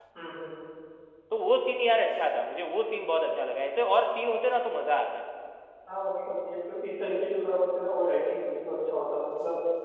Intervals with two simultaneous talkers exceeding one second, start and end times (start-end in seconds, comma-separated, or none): none